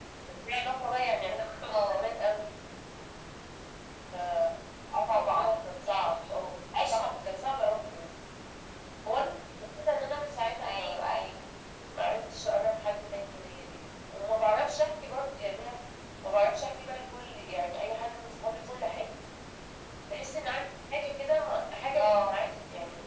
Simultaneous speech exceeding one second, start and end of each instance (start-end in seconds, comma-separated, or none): 5.0-6.4